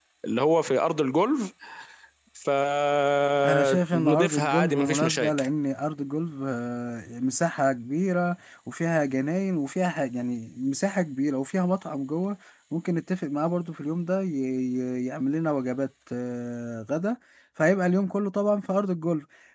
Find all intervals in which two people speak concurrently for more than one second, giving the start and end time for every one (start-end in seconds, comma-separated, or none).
3.5-5.5